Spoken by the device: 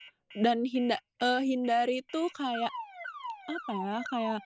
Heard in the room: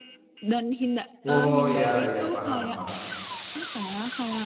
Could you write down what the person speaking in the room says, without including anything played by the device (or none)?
Oh iya iya paham paham.